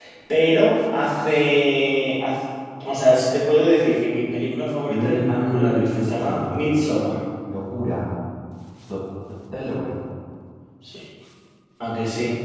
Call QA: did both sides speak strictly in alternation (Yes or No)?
No